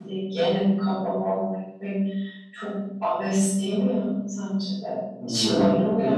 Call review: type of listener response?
taking over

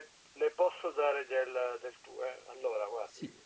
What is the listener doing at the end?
listening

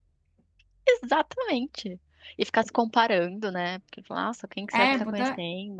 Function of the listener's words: taking over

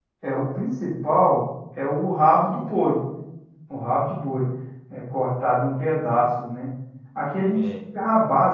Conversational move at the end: listening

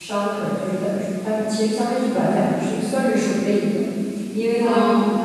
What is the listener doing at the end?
listening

